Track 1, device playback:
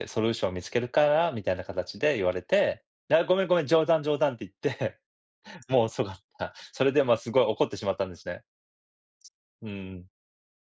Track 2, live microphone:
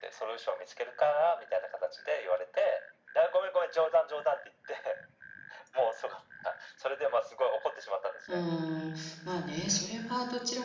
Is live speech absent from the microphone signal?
No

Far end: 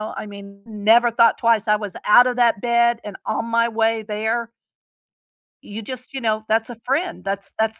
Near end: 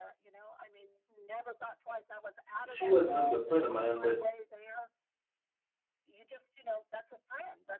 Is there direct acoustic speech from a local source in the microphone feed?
Yes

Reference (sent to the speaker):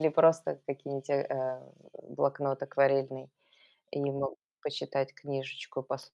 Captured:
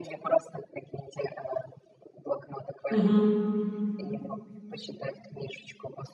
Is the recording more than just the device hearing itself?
Yes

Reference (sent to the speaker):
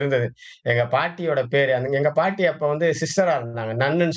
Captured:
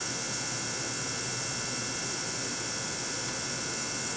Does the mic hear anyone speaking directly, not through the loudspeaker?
No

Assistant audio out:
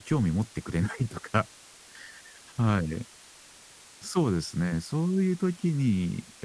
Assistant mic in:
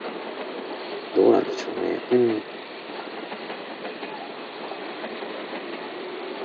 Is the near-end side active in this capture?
Yes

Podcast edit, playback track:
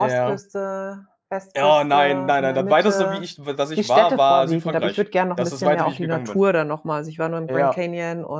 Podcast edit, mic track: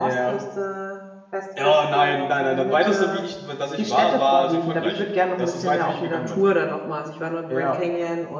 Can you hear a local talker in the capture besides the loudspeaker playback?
No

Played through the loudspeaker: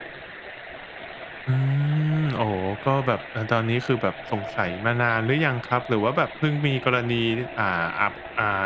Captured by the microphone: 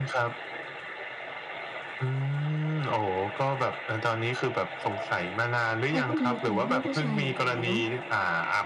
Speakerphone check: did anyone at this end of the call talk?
Yes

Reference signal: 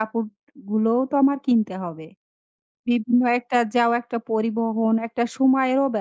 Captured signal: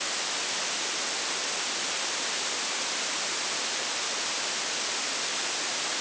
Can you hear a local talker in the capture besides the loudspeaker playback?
No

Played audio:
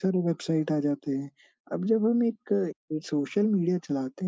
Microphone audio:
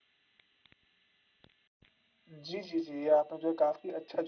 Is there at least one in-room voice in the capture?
Yes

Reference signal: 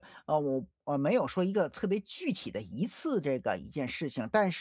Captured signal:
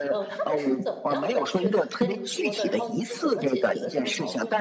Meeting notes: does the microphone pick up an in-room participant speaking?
Yes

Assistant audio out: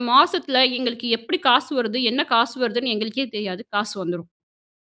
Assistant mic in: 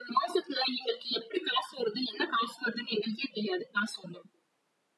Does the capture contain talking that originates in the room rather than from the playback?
No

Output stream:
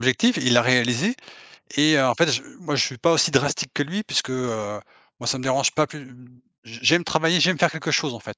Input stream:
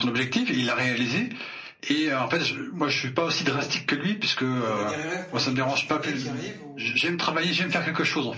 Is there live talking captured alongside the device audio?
Yes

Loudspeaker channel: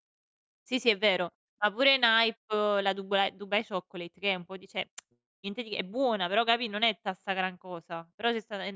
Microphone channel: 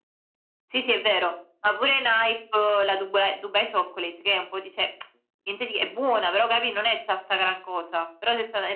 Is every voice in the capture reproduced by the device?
Yes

